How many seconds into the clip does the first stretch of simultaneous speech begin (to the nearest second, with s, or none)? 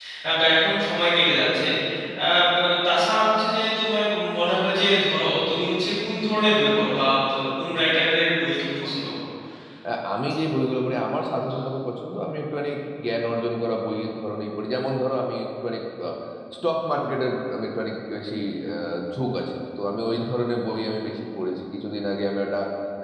none